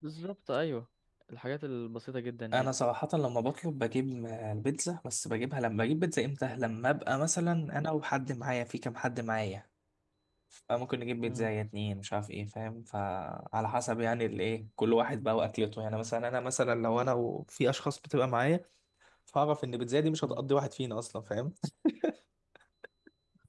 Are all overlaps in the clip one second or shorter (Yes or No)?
Yes